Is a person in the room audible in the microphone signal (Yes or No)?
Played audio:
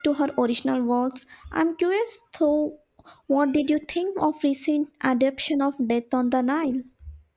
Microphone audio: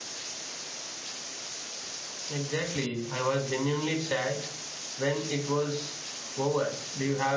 Yes